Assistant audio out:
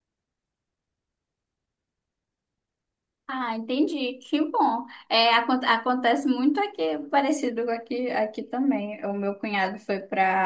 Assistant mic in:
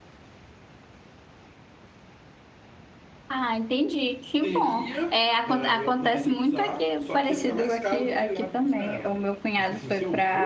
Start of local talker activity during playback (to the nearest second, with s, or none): 4 s